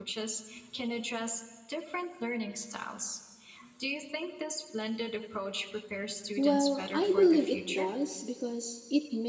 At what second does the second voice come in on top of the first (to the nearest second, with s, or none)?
6 s